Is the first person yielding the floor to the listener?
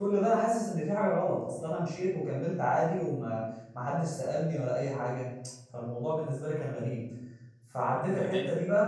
No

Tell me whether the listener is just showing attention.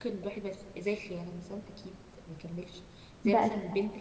Yes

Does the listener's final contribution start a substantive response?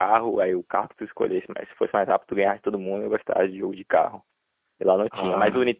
No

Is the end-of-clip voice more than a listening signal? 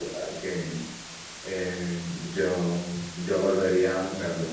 Yes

